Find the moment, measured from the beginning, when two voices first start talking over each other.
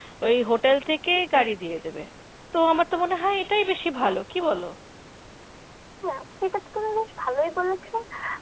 none

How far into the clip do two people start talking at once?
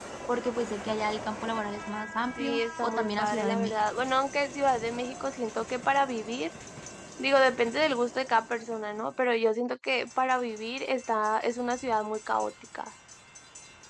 2 s

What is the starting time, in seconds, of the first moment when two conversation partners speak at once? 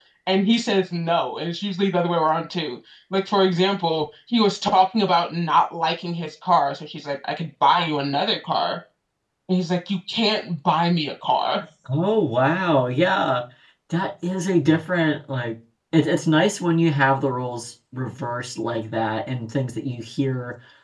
none

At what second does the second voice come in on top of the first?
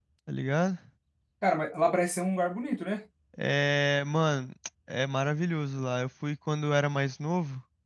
none

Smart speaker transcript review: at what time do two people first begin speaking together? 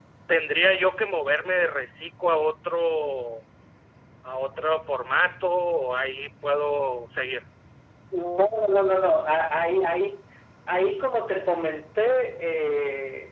none

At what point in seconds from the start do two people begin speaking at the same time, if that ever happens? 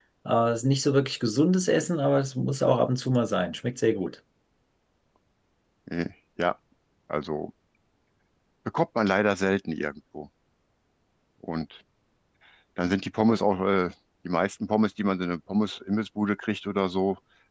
none

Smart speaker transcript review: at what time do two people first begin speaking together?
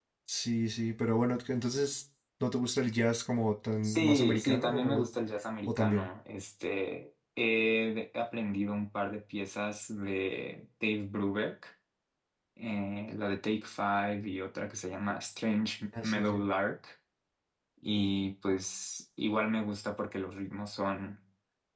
4 s

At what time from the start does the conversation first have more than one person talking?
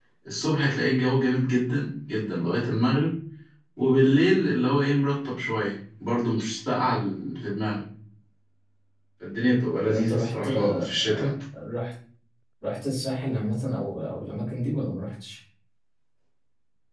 10 s

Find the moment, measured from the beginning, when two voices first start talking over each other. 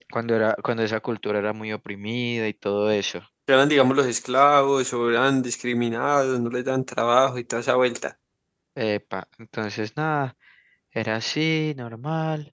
none

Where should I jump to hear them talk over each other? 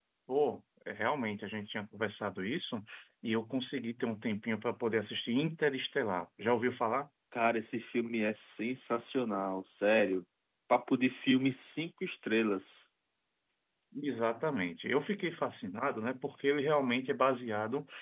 none

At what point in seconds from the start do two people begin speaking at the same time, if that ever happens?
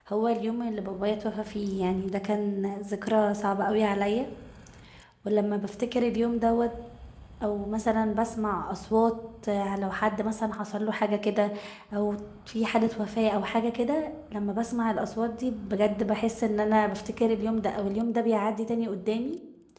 none

